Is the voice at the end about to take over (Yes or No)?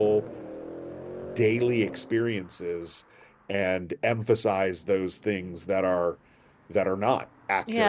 Yes